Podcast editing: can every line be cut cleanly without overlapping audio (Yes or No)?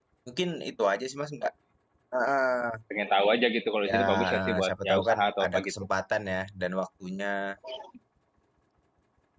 No